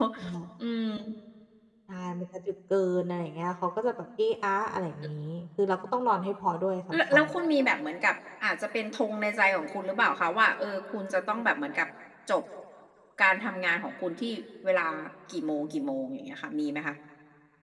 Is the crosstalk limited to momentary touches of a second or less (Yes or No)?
Yes